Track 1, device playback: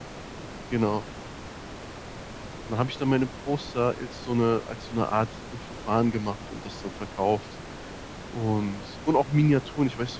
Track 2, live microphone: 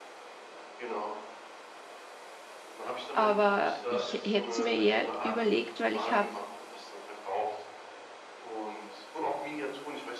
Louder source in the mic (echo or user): user